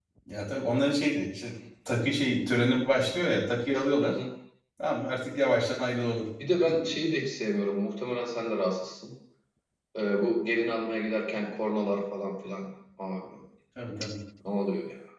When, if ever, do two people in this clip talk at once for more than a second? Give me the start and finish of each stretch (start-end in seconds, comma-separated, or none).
none